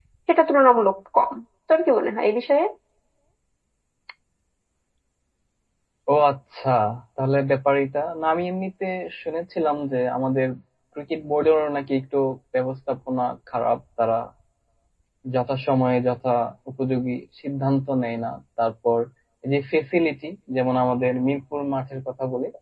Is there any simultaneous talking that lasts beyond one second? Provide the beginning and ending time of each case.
none

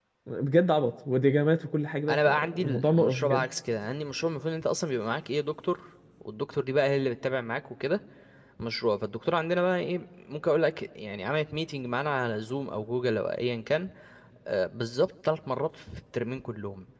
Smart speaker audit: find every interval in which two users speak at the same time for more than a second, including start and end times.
2.1-3.5

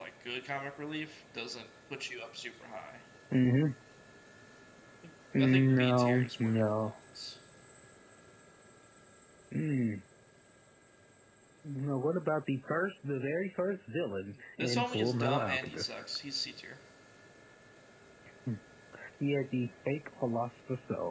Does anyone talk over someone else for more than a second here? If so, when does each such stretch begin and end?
5.4-6.9, 14.6-16.0

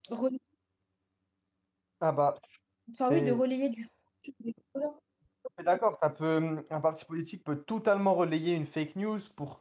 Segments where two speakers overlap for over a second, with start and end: none

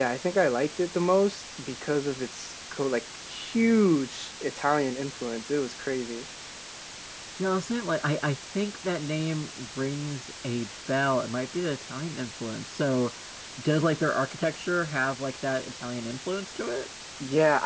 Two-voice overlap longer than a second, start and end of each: none

